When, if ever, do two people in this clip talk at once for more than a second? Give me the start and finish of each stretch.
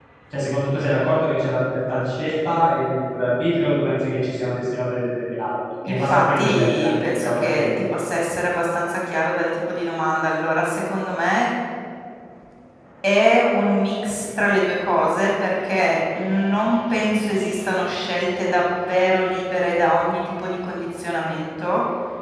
5.8-7.7

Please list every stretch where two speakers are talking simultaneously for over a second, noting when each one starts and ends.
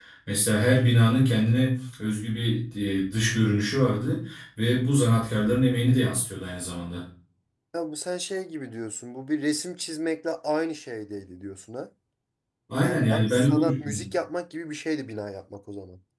12.8-14.1

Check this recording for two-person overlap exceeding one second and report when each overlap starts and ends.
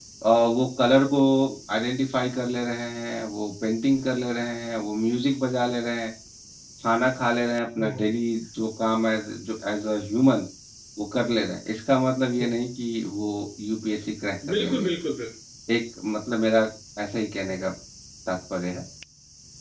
none

